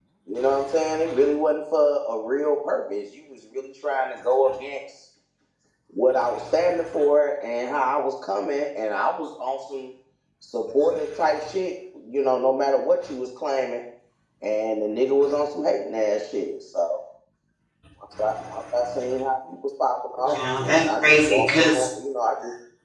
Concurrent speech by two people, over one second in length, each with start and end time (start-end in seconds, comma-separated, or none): 20.2-21.9